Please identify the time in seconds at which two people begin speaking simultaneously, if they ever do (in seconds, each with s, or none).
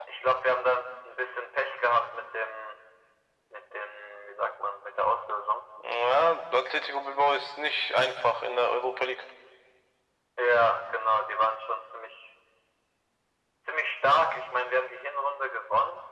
none